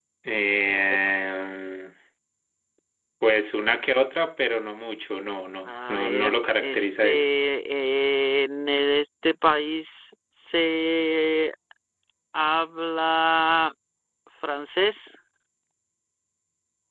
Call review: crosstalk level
present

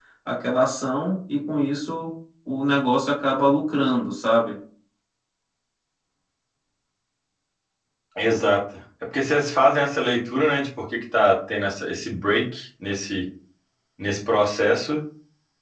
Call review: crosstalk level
none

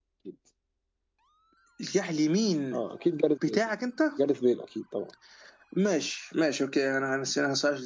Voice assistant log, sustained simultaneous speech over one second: none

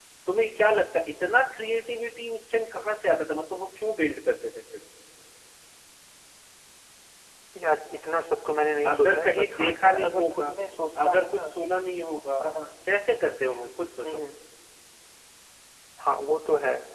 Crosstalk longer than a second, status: present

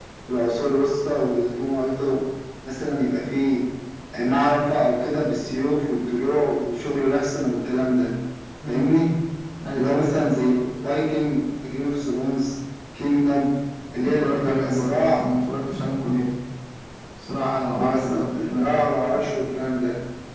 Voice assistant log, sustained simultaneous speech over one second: present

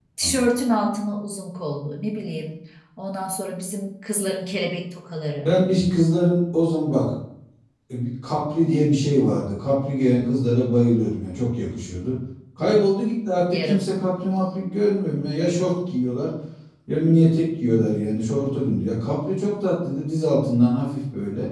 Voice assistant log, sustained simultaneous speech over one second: none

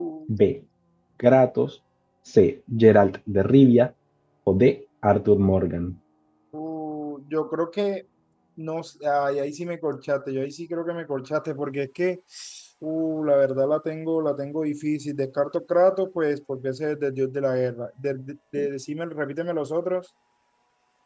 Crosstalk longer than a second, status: none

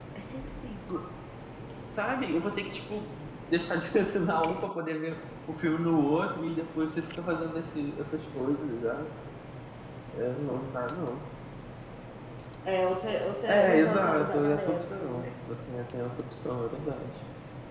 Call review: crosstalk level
present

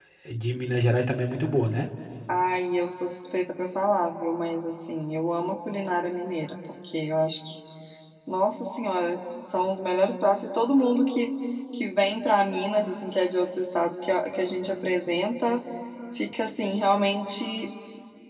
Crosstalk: none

